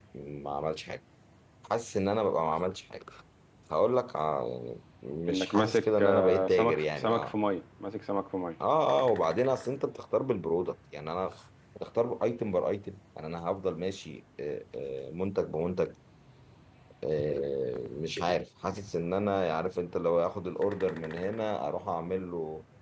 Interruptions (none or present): present